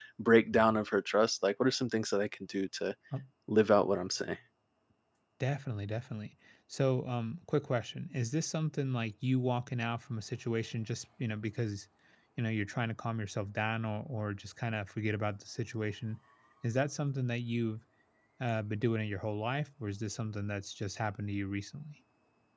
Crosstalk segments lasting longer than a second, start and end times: none

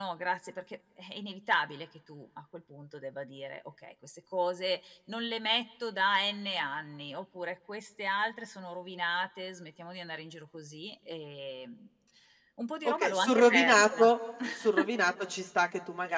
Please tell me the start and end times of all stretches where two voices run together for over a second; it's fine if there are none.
12.8-14.1

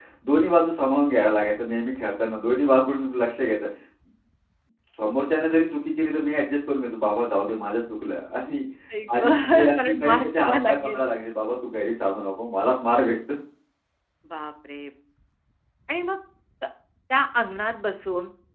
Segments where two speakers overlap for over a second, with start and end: 9.2-11.0

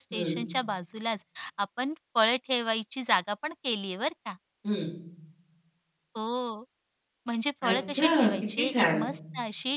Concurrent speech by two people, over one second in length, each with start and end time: 7.7-9.1

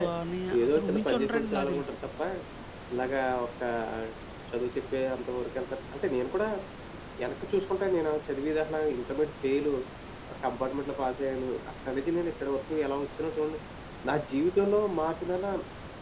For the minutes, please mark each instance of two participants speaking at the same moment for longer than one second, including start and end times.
0.6-1.9

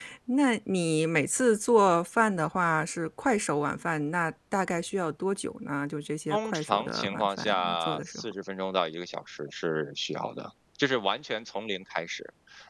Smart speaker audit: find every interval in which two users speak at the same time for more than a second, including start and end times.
6.3-8.2

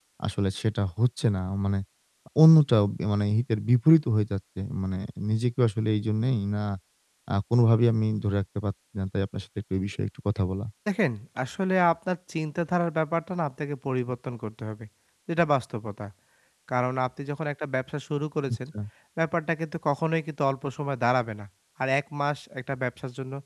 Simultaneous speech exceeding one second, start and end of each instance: none

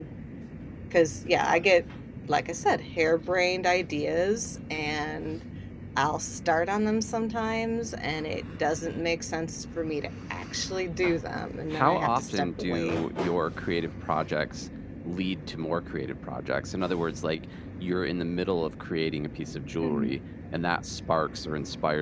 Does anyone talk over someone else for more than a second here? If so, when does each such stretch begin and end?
11.7-13.0

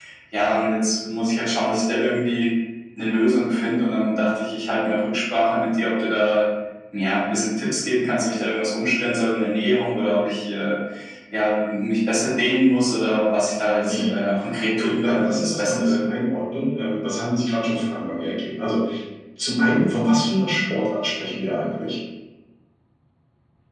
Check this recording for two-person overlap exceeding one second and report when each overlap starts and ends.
14.7-16.0

